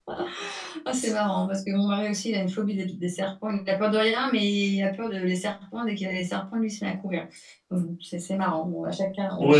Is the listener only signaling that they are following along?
No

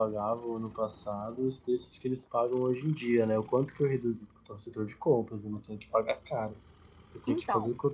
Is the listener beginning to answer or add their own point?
No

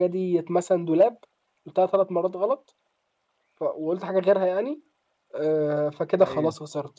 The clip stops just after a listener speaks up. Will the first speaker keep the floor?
Yes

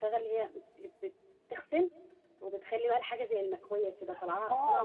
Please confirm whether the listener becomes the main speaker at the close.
Yes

